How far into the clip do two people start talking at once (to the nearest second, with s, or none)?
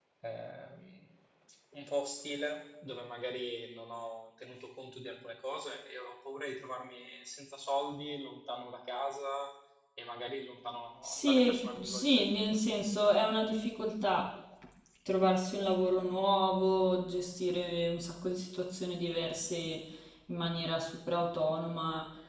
11 s